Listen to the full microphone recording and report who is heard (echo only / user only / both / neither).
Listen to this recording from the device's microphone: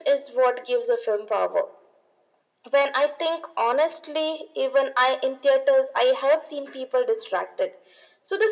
echo only